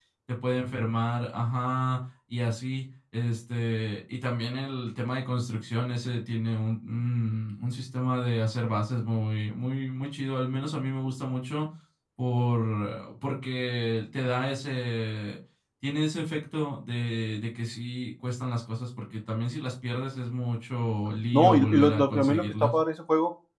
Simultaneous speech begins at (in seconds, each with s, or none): 21.3 s